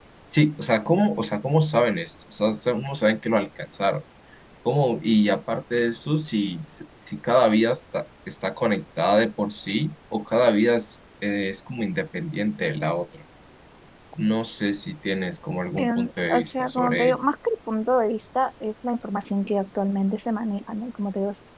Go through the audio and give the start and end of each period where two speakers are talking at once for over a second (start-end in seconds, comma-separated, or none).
15.8-17.2